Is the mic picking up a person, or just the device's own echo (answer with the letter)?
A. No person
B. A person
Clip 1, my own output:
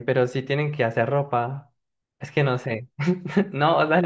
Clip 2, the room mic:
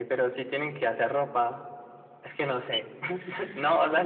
A